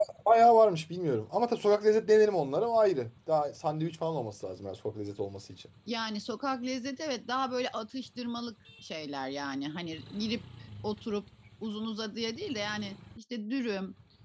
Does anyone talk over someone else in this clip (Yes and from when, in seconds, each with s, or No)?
No